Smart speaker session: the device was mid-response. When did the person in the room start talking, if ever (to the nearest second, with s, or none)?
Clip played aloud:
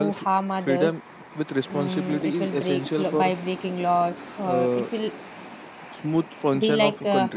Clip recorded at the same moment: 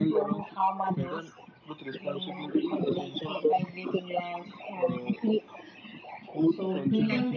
6 s